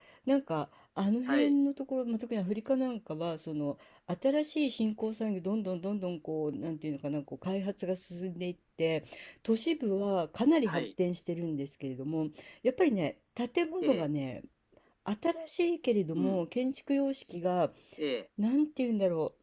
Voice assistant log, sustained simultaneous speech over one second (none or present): none